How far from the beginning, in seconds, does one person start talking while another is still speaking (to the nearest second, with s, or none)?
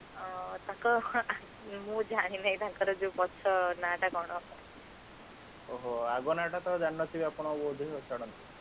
none